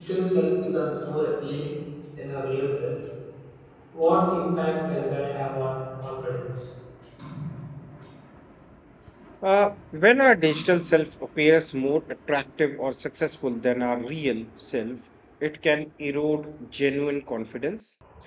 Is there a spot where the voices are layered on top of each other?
No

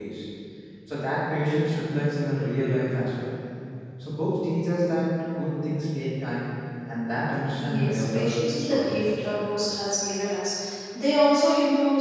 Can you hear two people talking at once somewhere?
Yes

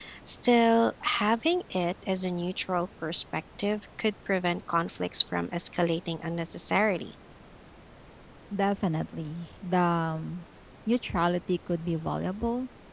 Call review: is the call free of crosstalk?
Yes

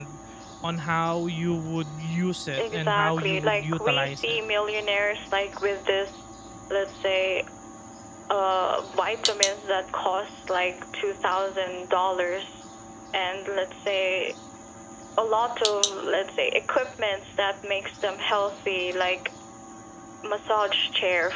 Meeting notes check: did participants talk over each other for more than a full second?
Yes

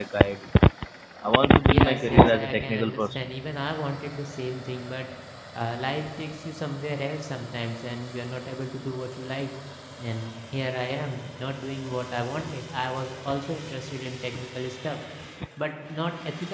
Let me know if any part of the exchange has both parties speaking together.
Yes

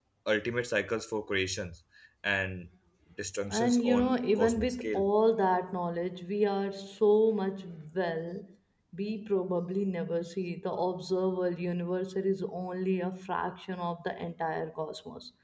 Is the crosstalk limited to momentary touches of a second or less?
No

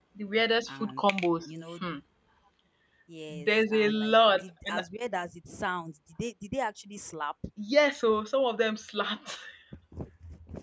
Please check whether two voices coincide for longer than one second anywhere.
Yes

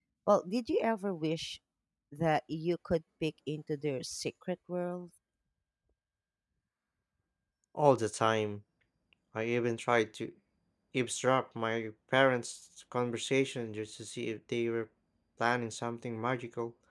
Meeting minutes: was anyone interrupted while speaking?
No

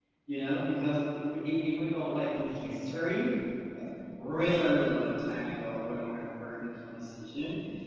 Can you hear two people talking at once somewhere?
No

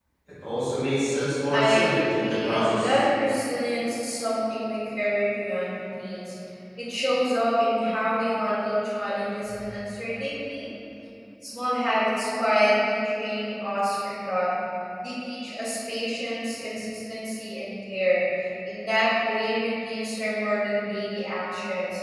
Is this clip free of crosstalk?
No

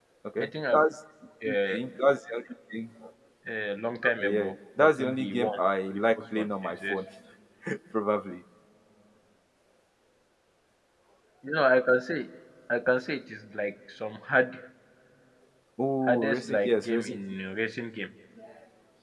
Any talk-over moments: Yes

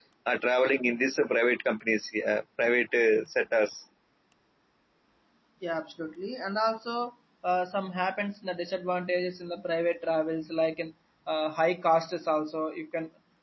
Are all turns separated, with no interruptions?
Yes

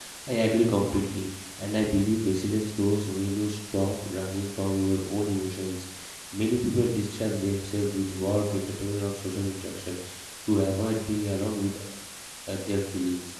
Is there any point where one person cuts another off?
No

